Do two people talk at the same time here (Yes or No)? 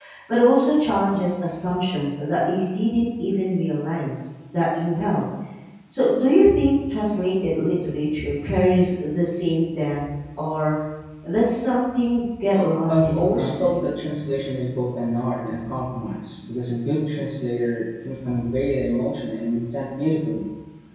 Yes